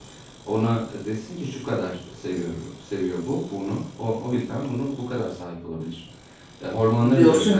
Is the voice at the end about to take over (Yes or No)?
Yes